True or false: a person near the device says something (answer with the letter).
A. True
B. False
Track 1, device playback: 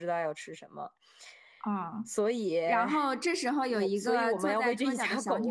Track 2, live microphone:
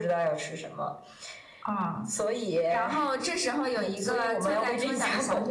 B